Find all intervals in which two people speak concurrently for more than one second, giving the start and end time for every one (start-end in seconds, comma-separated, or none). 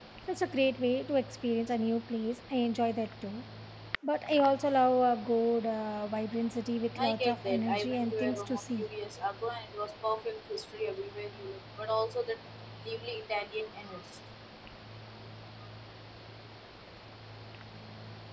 7.0-8.8